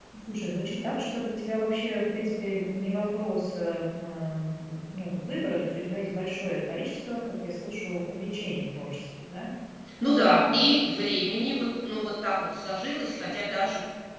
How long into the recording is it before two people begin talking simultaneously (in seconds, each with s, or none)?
none